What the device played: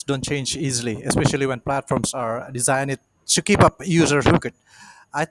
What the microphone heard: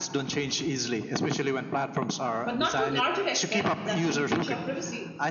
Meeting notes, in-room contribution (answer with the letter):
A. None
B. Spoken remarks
B